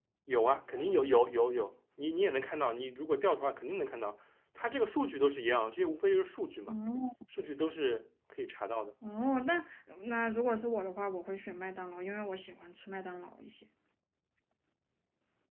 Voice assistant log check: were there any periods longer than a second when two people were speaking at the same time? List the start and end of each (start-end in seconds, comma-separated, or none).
none